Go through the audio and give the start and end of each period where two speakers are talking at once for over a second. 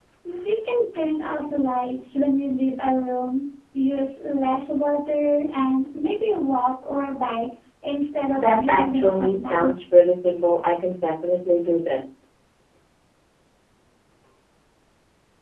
8.3-9.7

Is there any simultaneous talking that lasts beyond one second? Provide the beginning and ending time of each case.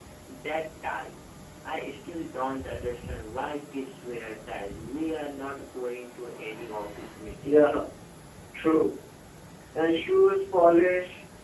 none

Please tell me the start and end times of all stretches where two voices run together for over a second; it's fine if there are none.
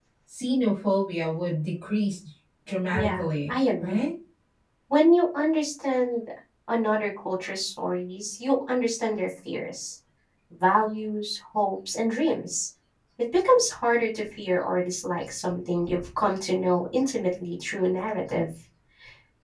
2.7-4.1

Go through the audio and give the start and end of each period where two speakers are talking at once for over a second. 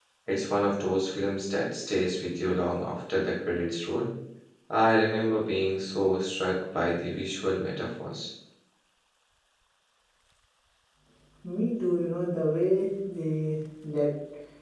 none

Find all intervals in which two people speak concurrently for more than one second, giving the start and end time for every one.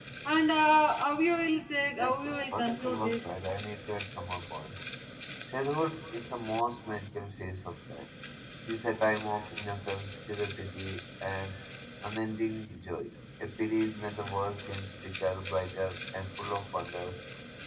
2.0-3.2

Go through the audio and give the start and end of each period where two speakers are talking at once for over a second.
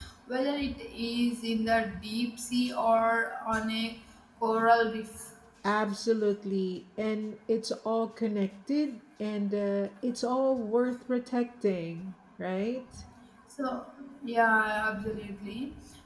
none

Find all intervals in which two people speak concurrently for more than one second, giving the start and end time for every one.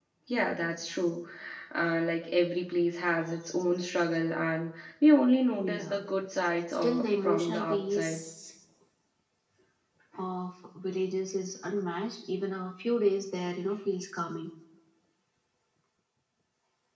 6.7-8.2

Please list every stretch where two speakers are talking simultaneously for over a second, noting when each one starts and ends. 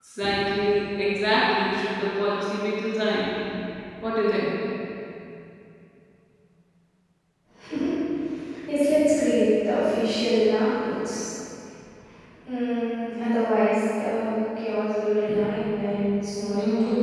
none

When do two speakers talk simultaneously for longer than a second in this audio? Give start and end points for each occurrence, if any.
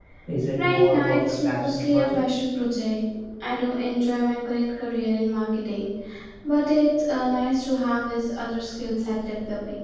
0.6-2.2

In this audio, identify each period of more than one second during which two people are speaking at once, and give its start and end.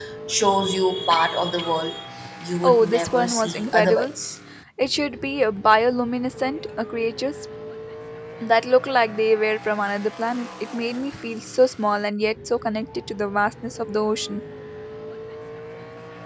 2.6-4.1

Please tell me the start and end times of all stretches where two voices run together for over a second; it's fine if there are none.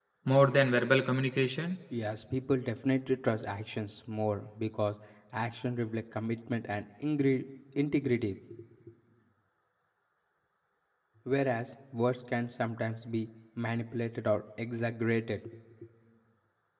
none

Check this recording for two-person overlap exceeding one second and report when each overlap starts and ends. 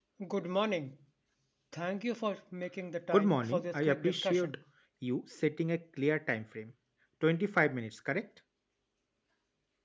3.1-4.6

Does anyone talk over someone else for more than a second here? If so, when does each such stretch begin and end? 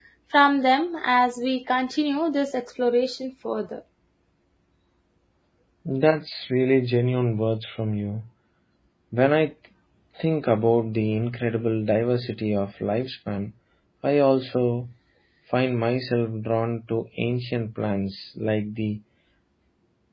none

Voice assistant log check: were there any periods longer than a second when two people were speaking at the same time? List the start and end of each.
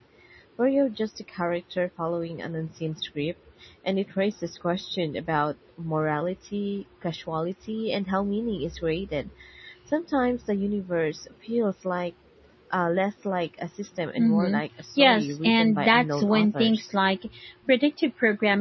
15.0-16.9

